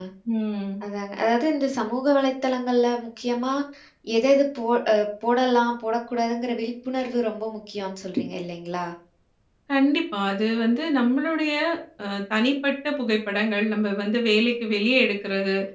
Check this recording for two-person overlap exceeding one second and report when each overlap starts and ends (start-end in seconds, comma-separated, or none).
none